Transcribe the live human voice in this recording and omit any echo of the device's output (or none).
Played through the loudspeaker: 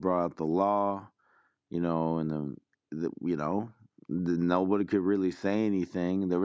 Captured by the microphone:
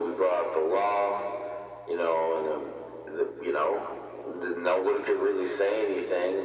none